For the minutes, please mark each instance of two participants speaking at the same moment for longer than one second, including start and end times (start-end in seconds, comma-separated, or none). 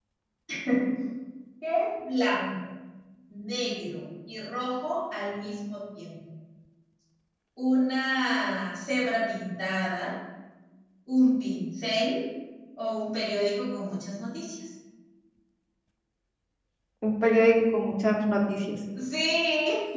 none